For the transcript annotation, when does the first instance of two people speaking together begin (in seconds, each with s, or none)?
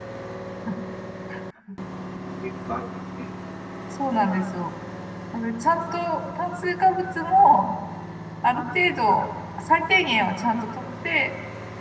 none